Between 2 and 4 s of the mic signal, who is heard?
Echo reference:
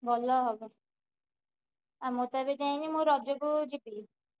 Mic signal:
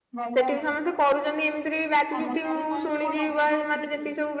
both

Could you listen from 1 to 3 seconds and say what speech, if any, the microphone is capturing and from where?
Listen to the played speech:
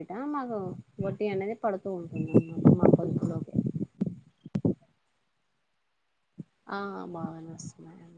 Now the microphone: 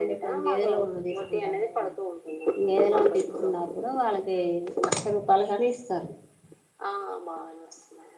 both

